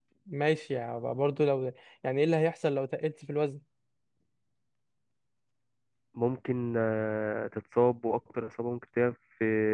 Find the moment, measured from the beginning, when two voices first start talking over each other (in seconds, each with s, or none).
none